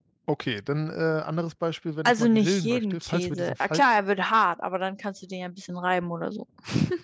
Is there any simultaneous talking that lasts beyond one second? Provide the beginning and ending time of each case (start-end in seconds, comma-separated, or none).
2.0-3.8